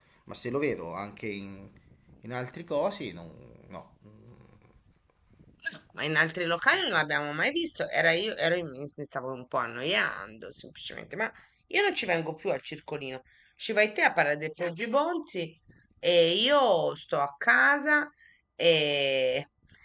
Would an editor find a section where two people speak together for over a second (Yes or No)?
No